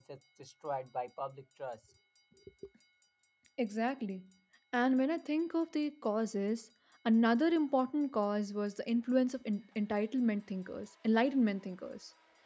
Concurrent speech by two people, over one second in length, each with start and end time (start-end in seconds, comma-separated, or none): none